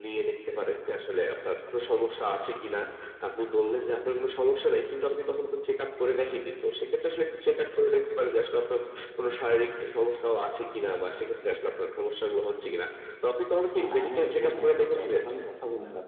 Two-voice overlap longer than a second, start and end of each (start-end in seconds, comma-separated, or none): 13.9-15.2